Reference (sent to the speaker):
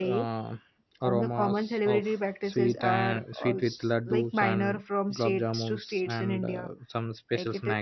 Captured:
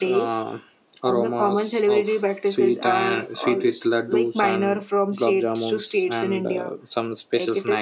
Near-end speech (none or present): none